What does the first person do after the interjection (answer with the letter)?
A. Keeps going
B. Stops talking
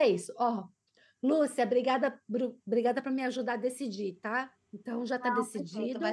B